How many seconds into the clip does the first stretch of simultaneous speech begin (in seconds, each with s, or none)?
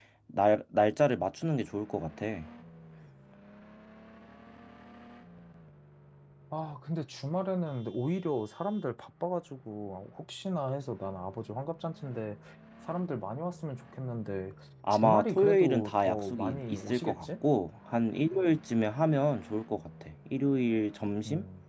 14.9 s